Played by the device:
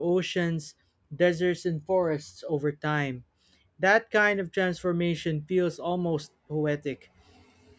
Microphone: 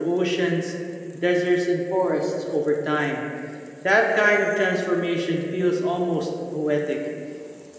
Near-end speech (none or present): none